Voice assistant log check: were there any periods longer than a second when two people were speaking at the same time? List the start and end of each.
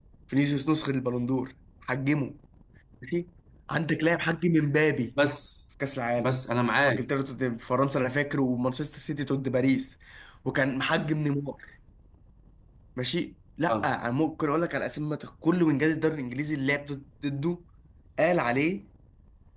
none

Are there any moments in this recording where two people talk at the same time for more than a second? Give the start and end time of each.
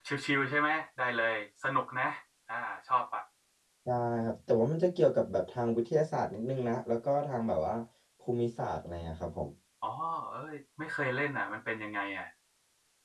none

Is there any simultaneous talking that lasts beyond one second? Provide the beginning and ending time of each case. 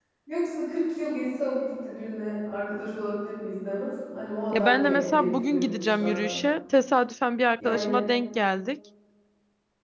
4.5-6.4

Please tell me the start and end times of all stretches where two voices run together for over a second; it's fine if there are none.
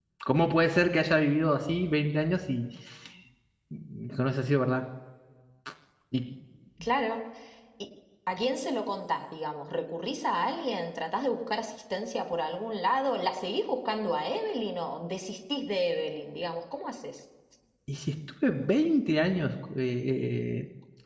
none

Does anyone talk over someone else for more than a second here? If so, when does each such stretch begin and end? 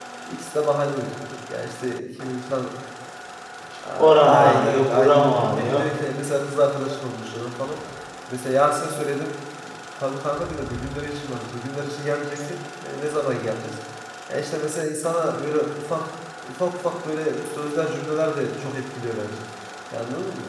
4.2-5.8

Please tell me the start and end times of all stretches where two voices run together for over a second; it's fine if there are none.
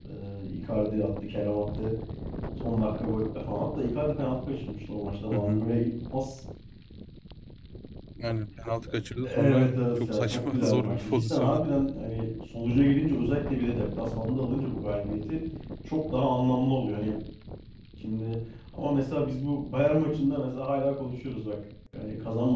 9.2-11.6

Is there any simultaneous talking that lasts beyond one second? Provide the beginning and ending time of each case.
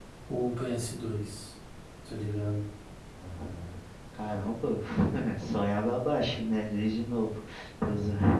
none

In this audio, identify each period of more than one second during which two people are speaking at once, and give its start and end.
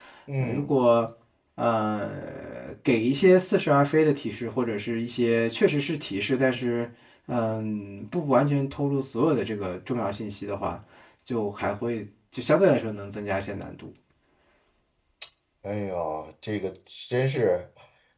none

